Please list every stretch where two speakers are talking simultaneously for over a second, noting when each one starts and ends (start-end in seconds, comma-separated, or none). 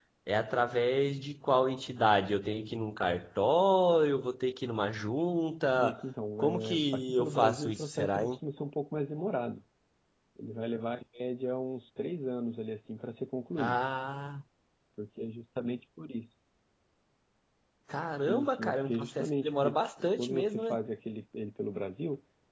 6.4-8.4, 18.2-20.8